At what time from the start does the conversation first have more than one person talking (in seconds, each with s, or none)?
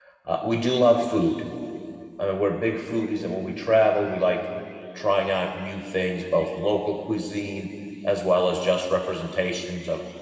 none